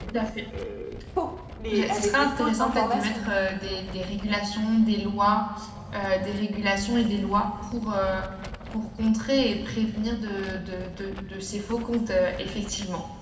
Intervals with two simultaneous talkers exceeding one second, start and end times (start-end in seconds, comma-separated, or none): 1.7-3.3